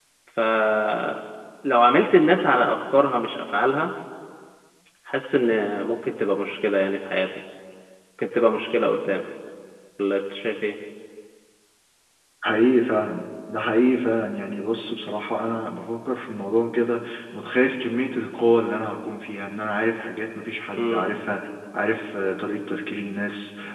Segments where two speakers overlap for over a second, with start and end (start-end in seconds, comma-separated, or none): none